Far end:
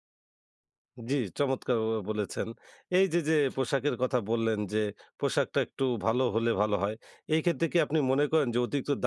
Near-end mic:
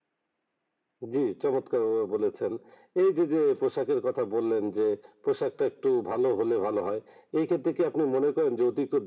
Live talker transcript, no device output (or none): none